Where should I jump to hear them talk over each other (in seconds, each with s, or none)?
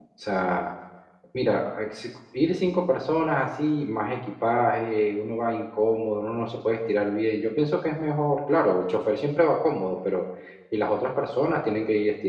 none